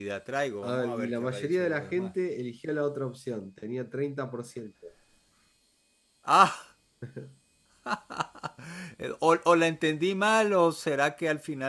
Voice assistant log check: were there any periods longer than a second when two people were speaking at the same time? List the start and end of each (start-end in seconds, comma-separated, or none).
0.6-2.1